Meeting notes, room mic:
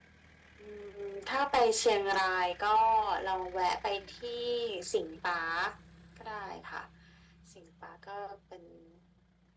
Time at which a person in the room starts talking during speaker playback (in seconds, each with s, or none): none